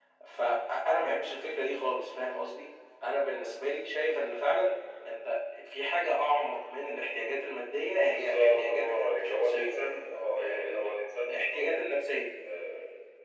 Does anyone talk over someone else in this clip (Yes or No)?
Yes